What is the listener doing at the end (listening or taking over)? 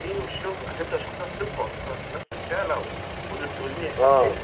listening